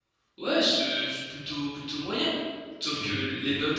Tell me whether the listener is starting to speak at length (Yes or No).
No